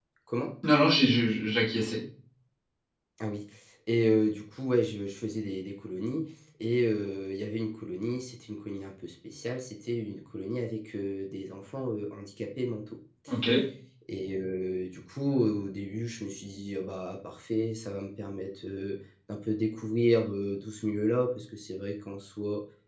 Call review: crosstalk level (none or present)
none